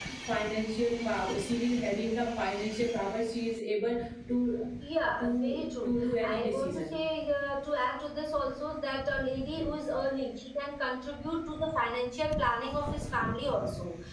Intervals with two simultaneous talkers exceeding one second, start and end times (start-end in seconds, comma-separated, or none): 5.2-7.0